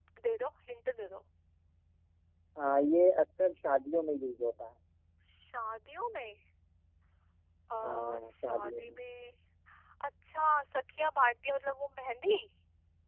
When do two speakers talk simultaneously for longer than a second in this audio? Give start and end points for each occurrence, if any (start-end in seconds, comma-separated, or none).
7.8-9.0